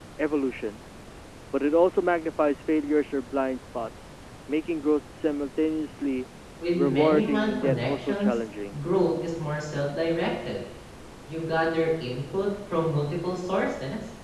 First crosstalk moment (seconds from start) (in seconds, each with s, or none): 6.7 s